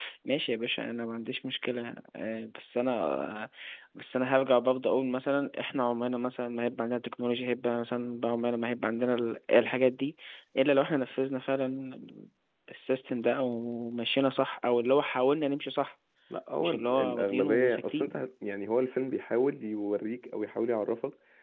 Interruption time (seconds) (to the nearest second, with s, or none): 17 s